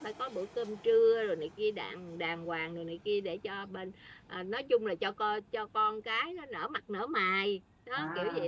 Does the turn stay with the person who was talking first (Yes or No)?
No